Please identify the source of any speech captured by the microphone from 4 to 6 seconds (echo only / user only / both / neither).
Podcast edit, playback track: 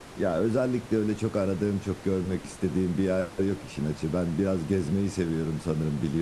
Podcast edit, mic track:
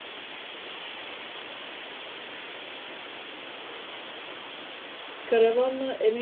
user only